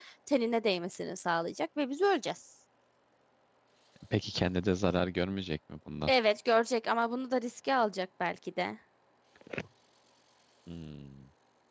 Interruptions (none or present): none